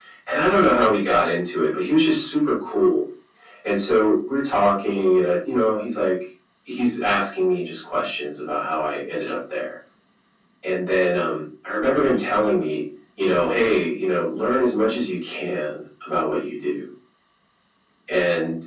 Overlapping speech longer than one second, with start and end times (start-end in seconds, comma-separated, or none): none